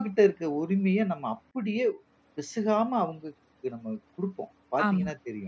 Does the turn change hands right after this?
Yes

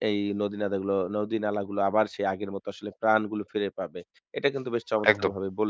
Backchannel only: Yes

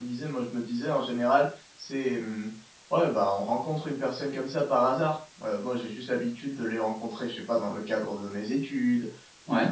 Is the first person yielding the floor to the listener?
No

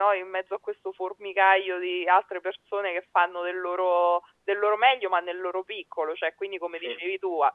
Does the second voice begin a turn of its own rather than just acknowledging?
No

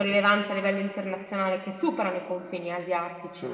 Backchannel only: Yes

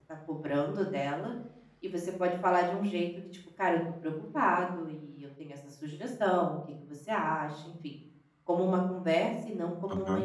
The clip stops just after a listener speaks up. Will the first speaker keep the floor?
No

